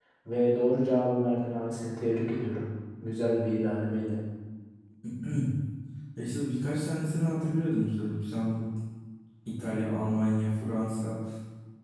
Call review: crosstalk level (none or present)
none